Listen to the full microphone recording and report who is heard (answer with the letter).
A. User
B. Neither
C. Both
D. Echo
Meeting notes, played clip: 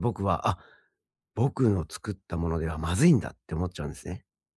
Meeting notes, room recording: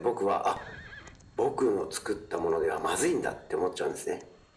D